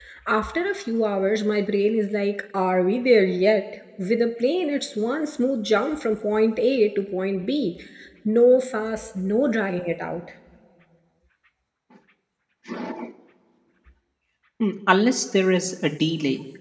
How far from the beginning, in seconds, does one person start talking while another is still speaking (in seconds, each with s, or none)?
none